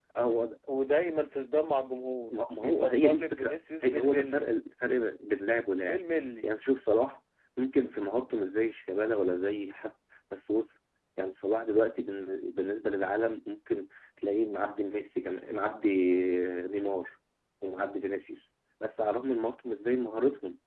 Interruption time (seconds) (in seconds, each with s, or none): 2.6 s